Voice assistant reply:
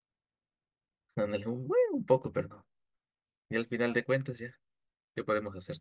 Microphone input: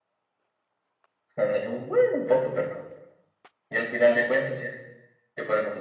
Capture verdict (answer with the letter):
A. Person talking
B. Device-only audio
B